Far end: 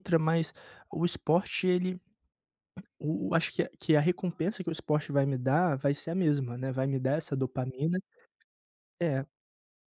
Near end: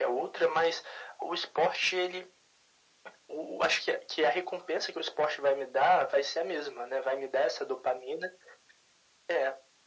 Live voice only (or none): none